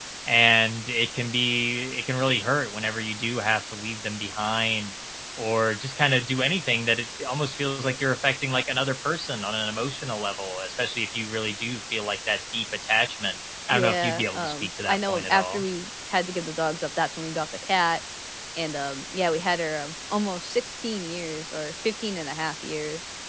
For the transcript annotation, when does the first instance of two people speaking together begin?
13.7 s

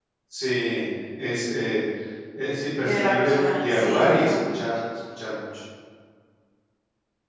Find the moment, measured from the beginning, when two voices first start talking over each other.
2.8 s

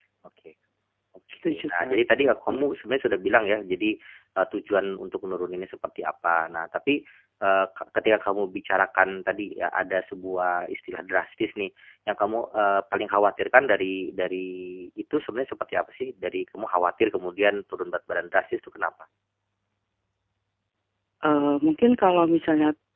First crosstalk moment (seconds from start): 1.5 s

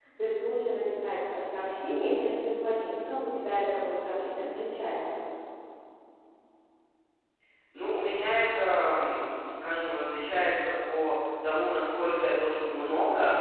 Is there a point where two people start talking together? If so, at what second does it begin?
none

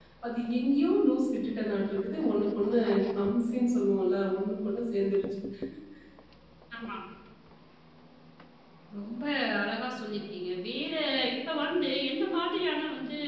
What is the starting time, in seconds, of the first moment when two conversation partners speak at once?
none

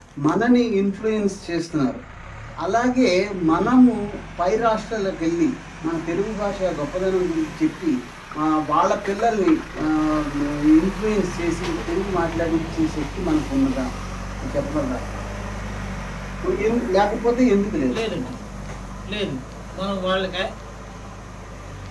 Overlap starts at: none

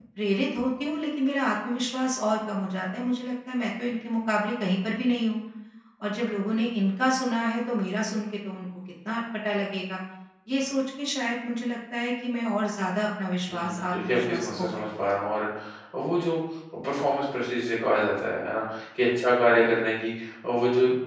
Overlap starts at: 13.5 s

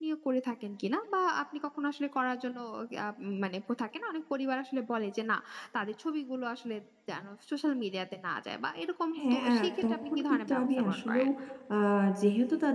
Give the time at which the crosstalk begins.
9.2 s

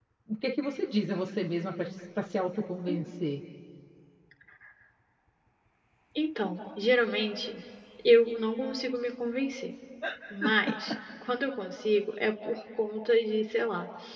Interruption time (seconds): none

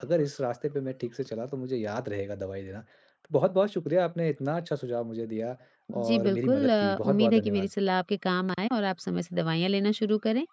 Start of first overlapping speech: 6.1 s

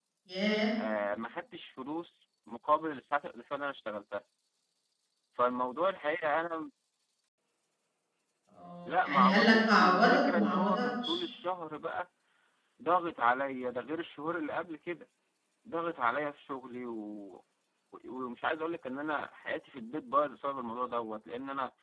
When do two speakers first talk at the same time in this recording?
8.8 s

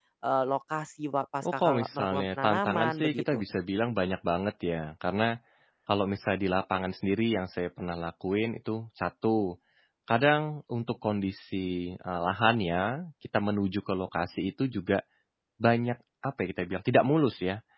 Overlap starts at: 1.4 s

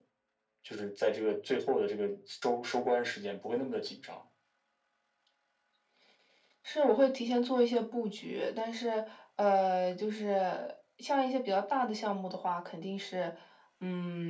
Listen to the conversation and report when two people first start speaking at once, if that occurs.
none

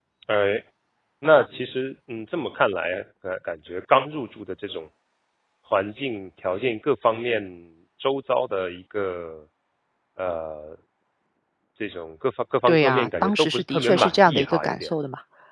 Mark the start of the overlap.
12.7 s

